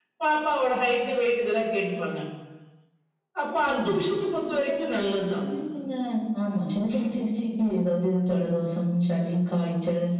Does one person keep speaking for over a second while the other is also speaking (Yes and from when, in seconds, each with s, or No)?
No